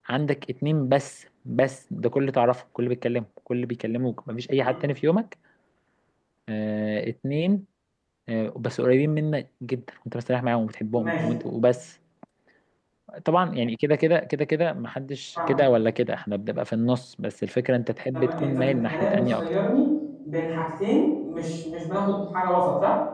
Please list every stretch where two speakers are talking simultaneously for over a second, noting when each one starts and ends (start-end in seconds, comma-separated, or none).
18.1-19.5